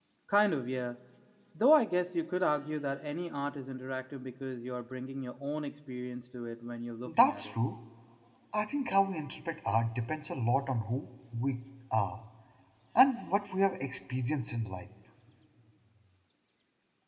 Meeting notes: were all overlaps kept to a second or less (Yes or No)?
Yes